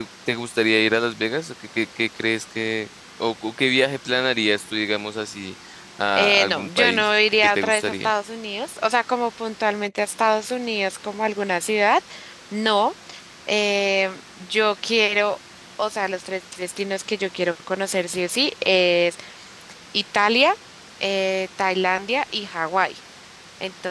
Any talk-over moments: Yes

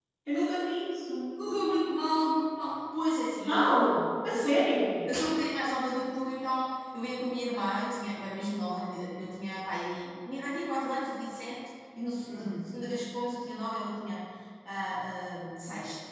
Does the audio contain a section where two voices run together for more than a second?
No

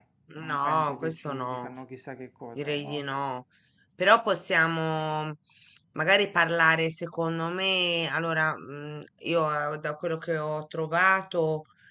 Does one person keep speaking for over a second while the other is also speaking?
Yes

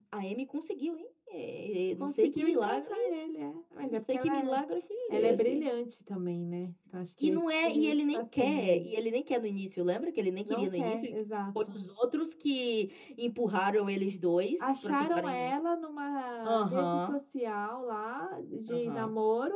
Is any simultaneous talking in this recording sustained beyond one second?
Yes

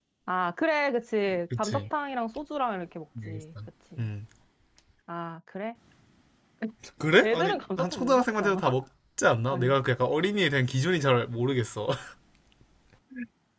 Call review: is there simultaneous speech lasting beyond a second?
Yes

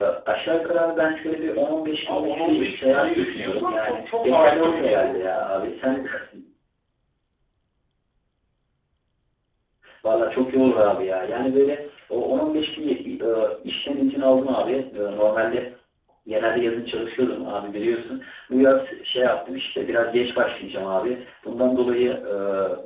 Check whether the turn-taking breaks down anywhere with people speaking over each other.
Yes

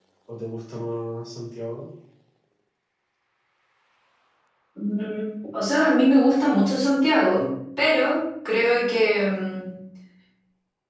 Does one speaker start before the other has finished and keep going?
No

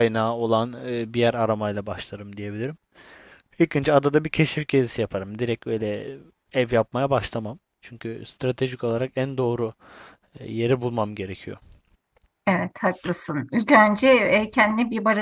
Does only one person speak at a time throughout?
Yes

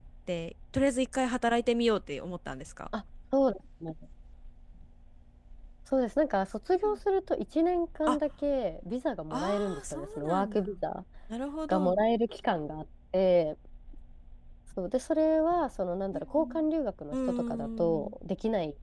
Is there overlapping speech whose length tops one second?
Yes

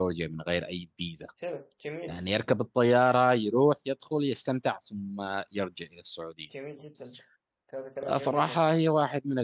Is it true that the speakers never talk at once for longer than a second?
Yes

